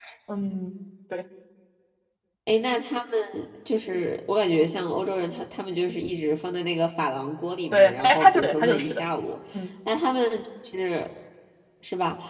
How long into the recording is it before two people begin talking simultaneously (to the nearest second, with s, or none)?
8 s